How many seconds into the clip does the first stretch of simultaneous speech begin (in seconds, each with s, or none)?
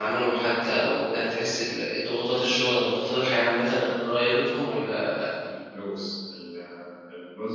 none